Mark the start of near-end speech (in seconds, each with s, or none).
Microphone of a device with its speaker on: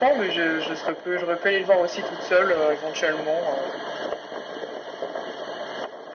none